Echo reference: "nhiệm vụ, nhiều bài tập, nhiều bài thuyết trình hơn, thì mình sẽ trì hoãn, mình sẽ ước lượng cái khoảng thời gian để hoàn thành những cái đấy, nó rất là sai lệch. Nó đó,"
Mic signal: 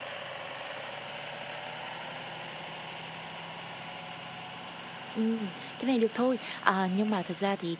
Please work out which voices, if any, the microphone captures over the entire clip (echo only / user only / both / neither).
user only